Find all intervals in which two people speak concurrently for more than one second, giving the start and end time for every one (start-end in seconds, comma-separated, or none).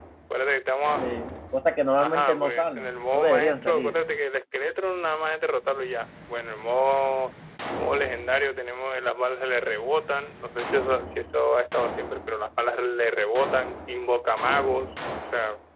2.0-4.0